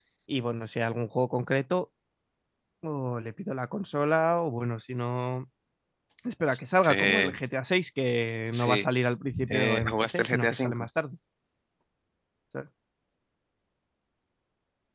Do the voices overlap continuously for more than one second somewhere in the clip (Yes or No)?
Yes